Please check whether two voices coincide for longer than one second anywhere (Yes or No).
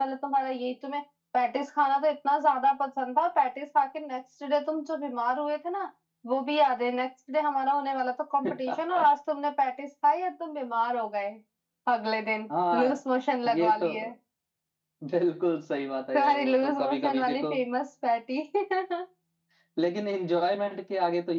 Yes